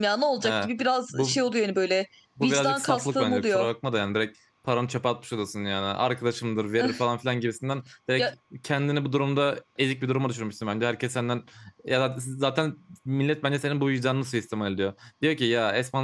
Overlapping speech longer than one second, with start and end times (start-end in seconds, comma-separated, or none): 2.4-3.7